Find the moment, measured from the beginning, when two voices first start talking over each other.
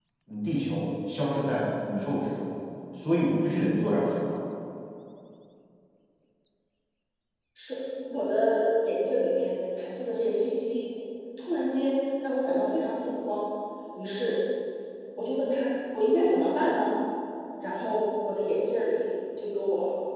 none

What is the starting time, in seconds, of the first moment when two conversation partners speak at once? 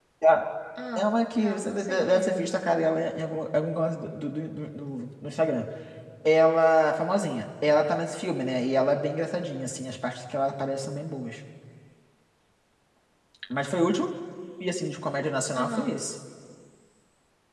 1.0 s

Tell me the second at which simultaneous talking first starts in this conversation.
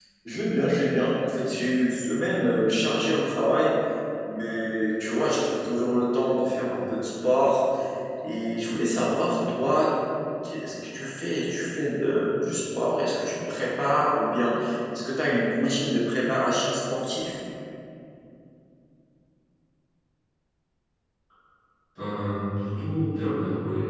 none

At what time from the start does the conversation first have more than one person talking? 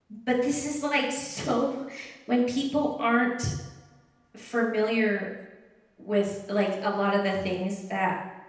none

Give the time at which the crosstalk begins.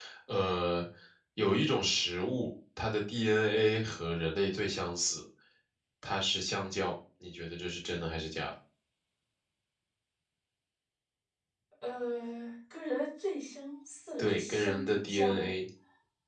14.2 s

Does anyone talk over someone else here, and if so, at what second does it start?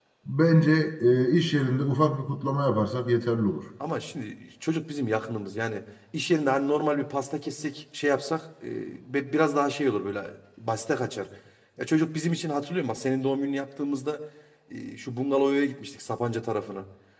none

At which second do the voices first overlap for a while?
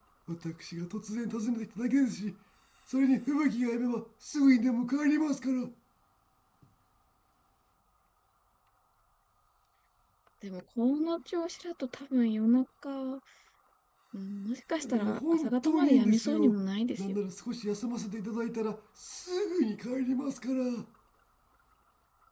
14.8 s

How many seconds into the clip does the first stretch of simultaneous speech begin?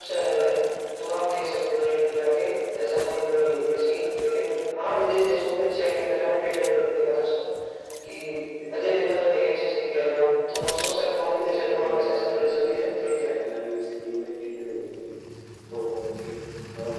10.9 s

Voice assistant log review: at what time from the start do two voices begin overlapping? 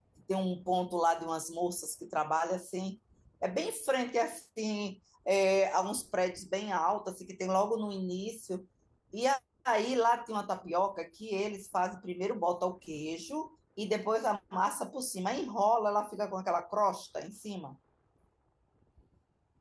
none

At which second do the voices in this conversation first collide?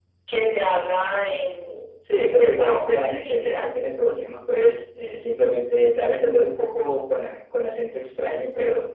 2.3 s

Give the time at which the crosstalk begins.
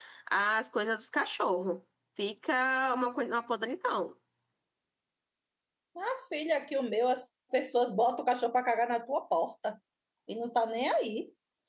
none

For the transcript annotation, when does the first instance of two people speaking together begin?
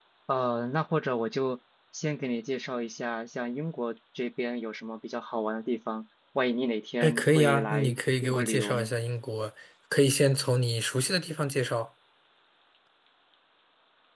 7.0 s

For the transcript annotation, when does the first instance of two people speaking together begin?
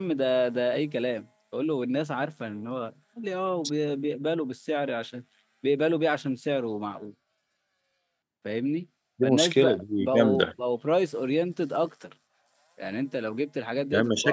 9.2 s

